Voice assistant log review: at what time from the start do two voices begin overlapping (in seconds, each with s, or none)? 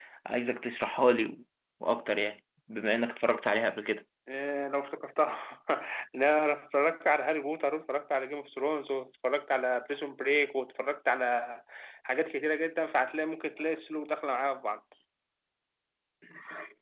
none